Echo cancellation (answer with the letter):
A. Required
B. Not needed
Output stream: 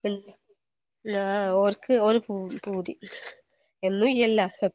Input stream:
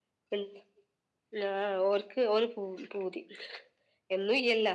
A